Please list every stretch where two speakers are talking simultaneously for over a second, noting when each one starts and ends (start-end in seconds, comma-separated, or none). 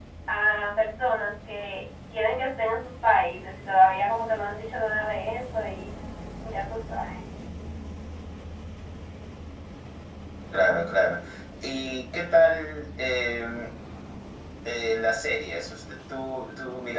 none